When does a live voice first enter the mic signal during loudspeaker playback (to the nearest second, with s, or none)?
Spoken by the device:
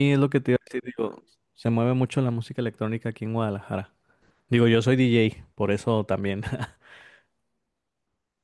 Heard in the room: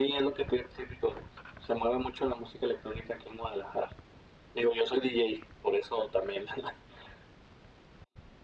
none